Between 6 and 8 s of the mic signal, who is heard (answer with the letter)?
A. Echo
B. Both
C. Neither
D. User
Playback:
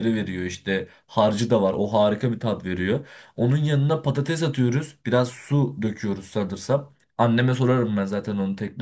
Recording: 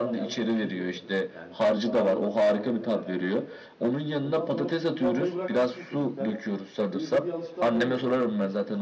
B